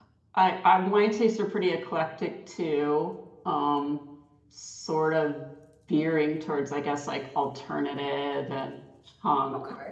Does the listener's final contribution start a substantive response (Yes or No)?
No